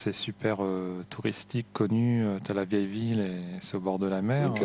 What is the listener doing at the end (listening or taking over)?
listening